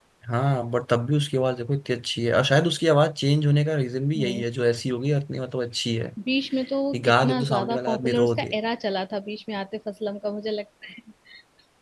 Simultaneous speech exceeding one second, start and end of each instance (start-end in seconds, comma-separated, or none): 6.9-8.6